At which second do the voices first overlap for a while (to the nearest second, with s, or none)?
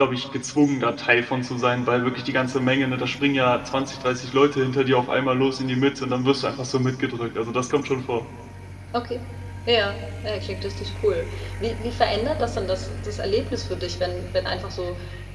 none